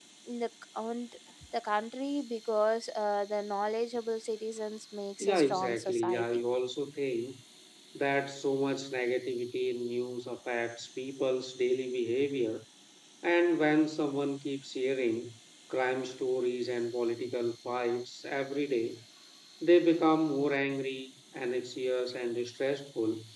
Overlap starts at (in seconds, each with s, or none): 5.2 s